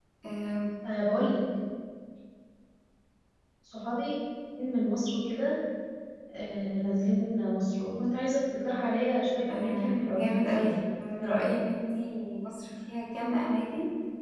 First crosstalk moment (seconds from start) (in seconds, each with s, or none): 9.5 s